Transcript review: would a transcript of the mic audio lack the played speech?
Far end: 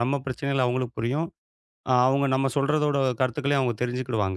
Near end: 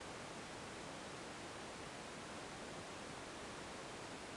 Yes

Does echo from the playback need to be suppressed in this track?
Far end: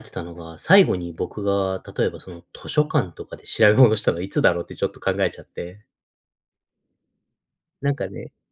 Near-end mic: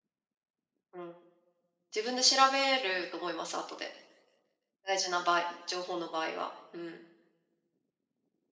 No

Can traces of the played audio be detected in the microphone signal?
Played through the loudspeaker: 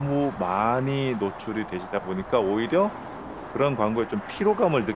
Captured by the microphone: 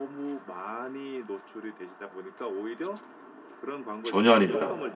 Yes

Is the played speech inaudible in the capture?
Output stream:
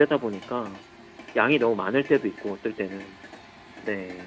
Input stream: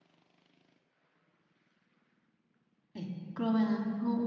Yes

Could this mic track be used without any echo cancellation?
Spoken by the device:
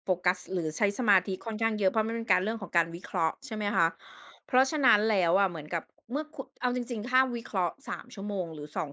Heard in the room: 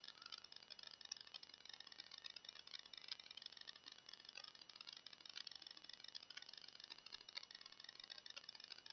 Yes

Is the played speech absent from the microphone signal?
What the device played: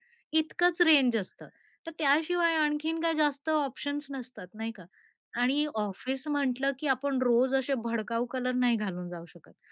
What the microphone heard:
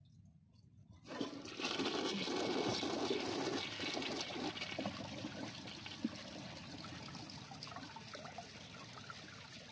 Yes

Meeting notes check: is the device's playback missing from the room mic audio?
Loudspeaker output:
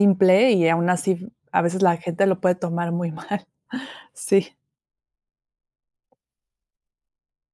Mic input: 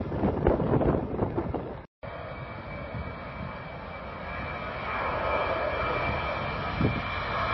Yes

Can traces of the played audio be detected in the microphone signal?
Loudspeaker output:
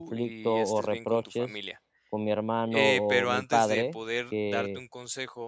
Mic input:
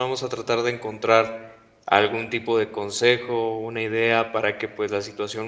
No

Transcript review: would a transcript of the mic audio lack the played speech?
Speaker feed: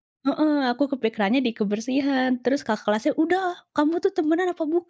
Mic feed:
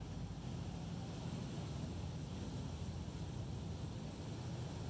Yes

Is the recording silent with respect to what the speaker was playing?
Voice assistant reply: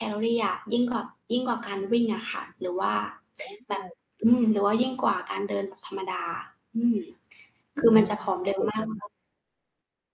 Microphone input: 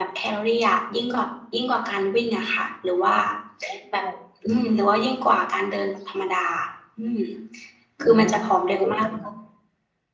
No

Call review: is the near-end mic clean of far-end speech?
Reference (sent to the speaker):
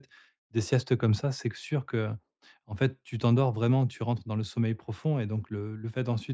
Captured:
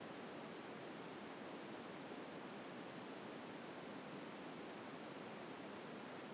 Yes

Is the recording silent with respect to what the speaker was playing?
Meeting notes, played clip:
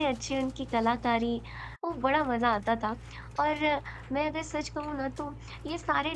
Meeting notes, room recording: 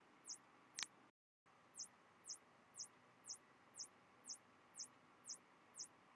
Yes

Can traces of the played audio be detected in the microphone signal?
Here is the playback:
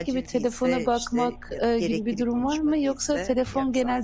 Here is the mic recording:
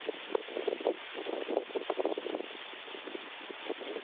No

